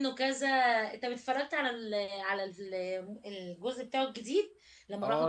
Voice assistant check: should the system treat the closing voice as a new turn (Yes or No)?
Yes